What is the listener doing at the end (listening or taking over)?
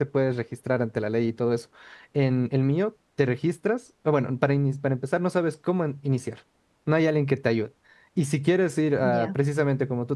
listening